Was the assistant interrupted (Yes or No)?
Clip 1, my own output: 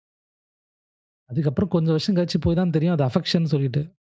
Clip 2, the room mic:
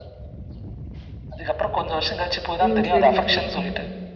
Yes